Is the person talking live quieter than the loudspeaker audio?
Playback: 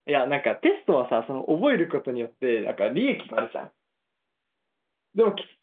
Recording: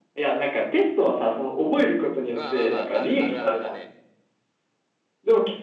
Yes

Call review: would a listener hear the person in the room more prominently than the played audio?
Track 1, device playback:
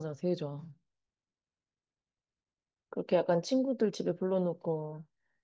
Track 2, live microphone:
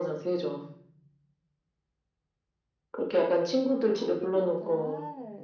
No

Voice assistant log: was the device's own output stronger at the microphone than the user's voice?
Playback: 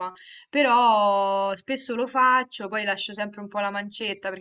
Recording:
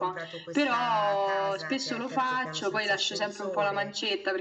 Yes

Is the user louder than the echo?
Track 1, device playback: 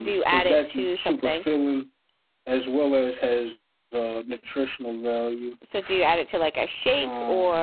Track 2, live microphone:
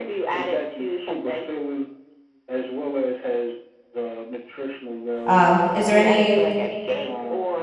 Yes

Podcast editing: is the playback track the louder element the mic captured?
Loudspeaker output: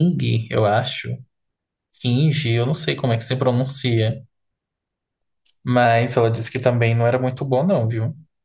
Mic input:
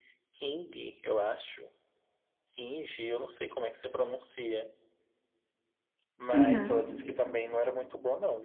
No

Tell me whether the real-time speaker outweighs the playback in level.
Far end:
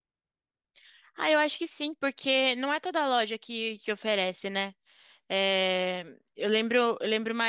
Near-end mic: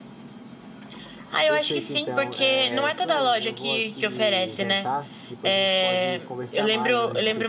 No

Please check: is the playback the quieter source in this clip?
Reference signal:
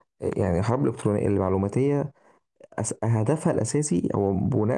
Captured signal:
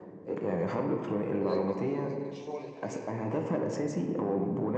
No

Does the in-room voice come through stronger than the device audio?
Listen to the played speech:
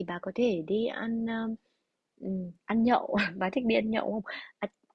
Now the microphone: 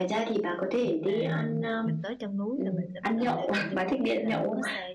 No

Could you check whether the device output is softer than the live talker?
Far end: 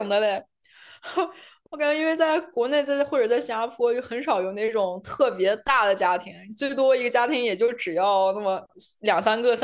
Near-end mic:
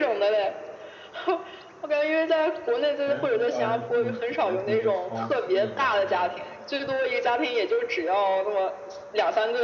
No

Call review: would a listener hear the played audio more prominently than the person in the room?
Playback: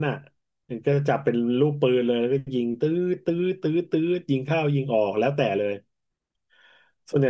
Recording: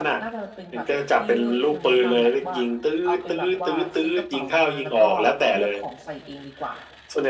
Yes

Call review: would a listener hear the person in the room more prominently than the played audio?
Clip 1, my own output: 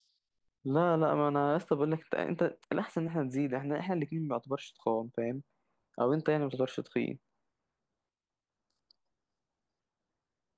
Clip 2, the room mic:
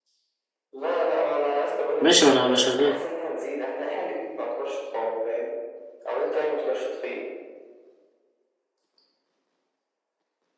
Yes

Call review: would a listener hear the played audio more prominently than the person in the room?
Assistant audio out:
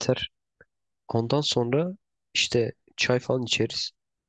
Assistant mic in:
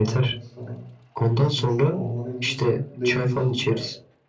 Yes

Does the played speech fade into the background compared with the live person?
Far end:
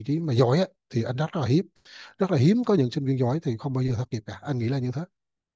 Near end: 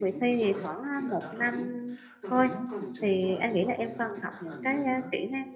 Yes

